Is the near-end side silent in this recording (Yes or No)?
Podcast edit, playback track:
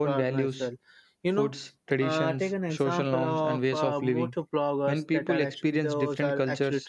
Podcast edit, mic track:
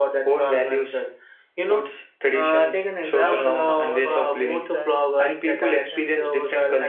No